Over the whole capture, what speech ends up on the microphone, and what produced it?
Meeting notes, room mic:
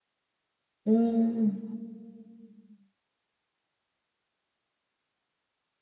user only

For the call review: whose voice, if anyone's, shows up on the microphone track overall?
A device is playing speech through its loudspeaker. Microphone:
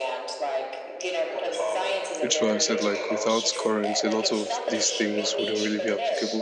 both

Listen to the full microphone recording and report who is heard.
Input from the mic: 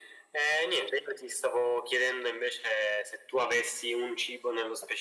echo only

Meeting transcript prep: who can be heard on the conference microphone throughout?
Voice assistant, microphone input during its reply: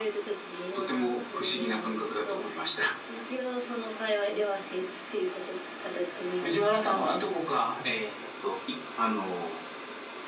both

